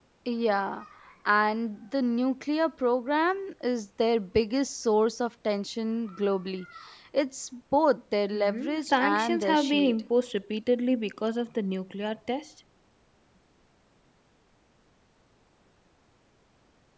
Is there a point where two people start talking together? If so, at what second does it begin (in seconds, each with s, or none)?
8.3 s